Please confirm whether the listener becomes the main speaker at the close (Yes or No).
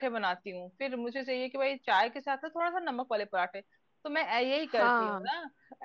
No